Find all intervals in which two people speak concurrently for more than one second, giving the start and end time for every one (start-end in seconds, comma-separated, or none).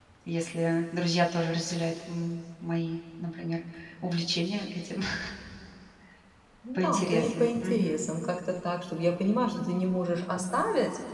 6.8-8.0